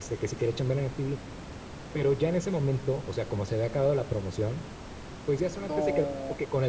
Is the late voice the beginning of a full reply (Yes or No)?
No